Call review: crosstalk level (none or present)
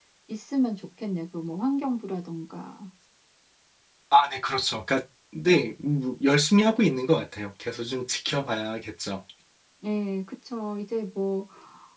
none